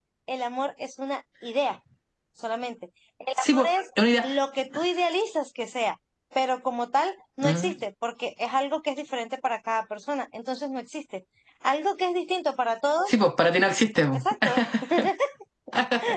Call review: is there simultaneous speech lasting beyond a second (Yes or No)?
No